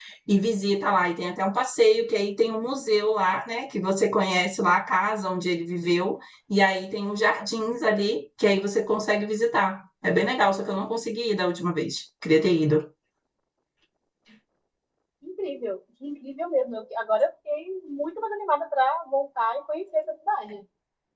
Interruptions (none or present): none